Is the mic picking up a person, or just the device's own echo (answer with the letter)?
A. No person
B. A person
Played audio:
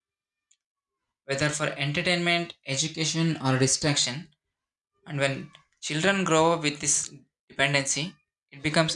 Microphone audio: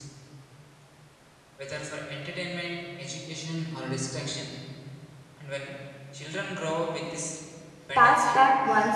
B